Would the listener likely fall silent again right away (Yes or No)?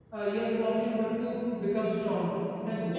Yes